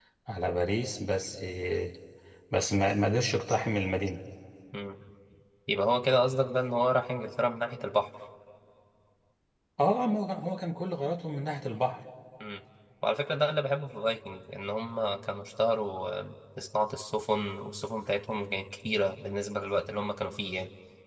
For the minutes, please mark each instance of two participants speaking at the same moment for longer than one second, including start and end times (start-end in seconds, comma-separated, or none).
none